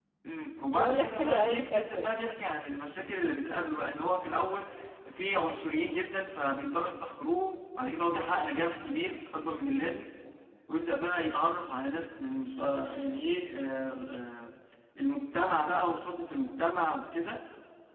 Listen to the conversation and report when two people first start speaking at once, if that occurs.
0.7 s

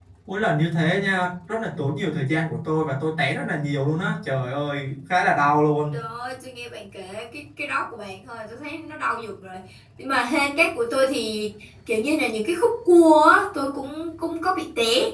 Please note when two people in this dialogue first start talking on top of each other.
none

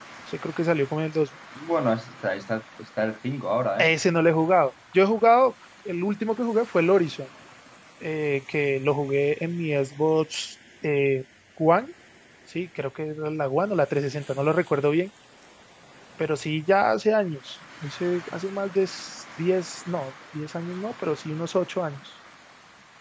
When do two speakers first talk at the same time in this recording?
none

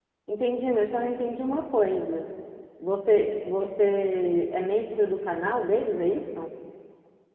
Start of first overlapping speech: none

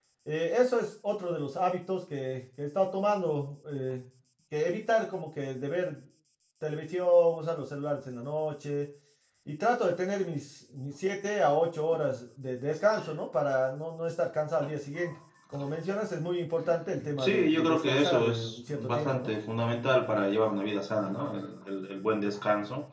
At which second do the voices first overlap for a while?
17.2 s

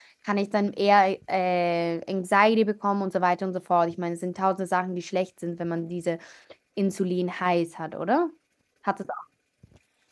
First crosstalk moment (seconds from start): none

